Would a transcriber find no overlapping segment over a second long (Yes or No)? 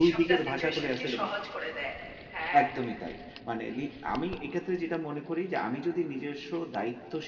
No